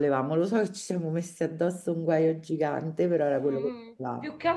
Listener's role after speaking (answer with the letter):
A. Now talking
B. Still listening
A